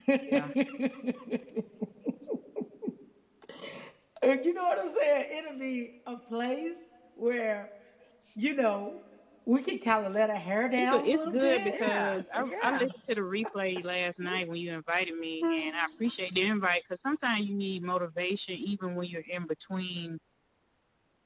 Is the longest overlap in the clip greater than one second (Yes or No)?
Yes